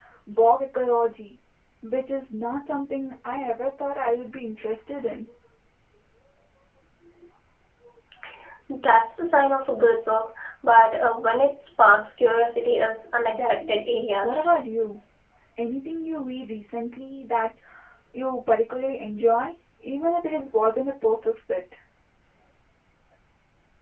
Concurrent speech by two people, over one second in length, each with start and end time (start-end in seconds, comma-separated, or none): 13.3-14.6